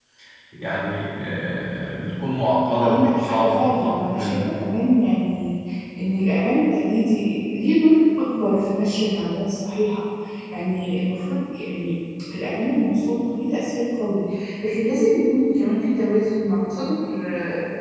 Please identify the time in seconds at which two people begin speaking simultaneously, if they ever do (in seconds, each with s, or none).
2.8 s